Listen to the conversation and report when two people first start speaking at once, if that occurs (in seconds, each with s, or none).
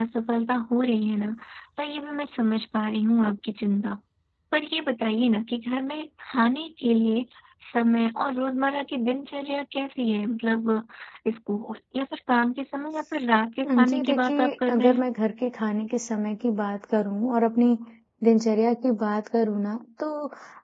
13.7 s